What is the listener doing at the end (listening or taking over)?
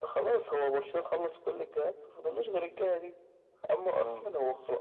listening